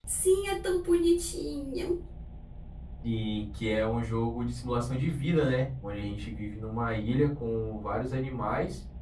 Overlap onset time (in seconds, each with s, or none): none